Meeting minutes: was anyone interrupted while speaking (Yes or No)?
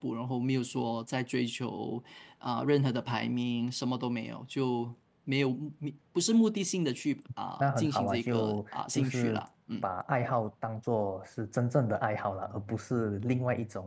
Yes